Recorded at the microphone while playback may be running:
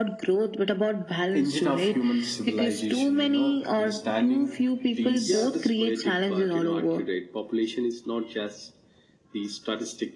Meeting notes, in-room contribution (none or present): present